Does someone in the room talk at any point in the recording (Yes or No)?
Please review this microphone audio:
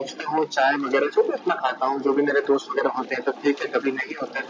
No